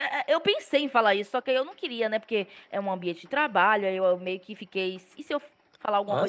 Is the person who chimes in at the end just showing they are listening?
Yes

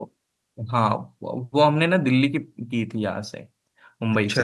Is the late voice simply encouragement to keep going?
Yes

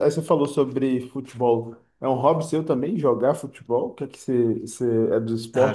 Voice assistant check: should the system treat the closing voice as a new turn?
Yes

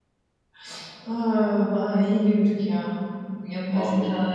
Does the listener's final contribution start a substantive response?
No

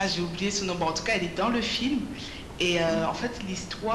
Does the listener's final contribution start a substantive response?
No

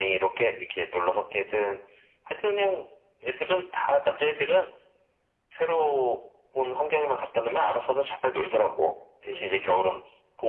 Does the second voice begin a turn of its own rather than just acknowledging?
No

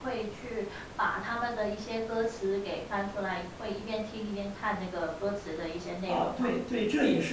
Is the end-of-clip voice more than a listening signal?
Yes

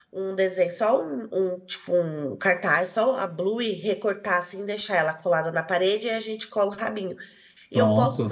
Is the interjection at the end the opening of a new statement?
No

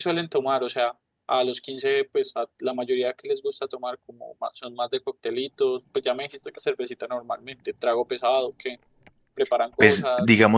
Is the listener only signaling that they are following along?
No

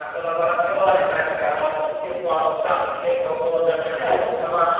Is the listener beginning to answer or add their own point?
No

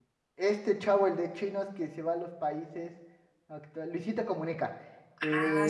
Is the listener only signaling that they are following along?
Yes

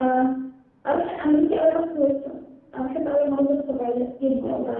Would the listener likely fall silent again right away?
No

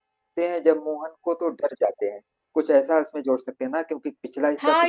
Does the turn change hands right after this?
Yes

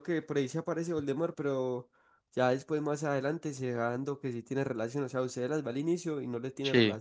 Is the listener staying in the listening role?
Yes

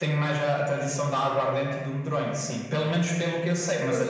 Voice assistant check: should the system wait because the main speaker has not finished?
Yes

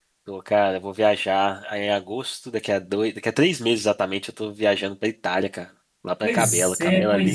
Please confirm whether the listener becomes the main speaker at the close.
Yes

